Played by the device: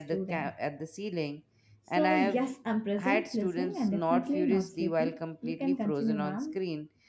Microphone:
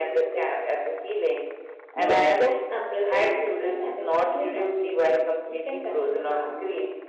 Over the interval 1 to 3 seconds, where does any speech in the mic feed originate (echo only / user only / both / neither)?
both